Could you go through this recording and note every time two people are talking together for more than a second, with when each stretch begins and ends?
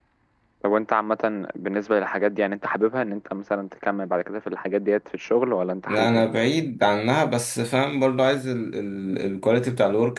none

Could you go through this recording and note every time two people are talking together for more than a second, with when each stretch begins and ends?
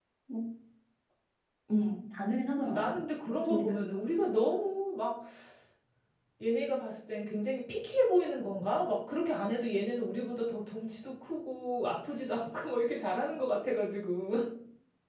none

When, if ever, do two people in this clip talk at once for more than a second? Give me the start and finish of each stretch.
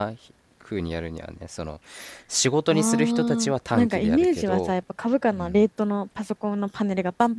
2.7-4.7

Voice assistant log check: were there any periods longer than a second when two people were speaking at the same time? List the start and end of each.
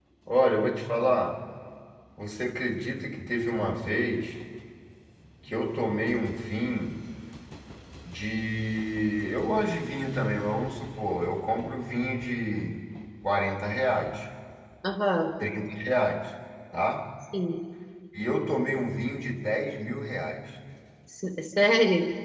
none

